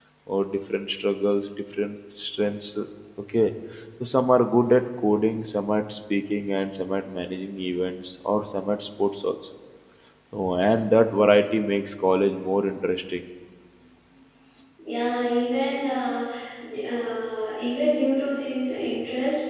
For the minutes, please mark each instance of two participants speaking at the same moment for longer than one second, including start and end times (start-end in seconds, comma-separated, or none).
none